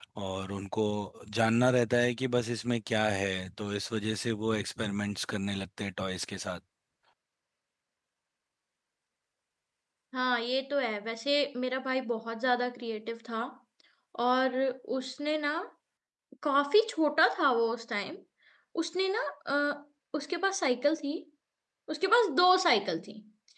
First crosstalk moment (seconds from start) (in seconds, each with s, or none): none